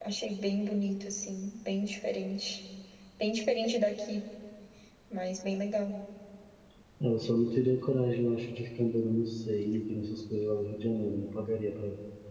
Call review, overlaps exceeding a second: none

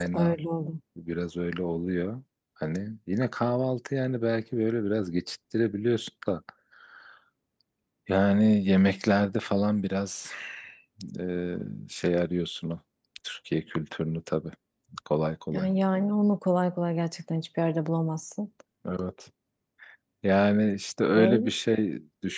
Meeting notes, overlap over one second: none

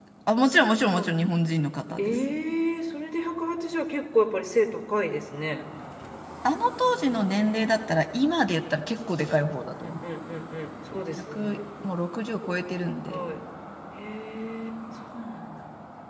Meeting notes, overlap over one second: none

